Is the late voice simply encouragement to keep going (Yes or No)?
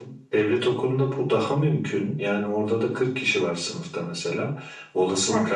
Yes